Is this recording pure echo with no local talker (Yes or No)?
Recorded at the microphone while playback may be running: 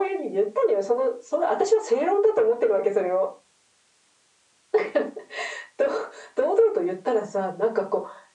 Yes